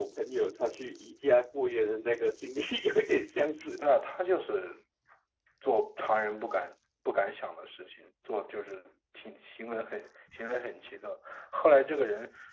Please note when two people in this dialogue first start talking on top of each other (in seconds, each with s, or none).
none